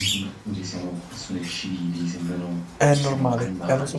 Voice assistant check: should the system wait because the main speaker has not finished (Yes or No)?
No